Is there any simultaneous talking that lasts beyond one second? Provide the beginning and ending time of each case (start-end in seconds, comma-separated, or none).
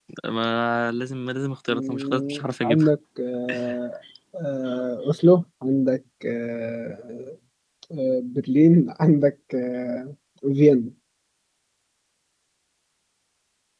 1.7-2.9